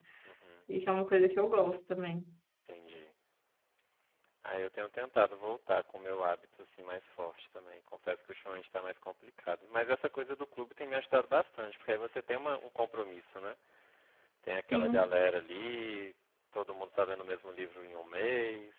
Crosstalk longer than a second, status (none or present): none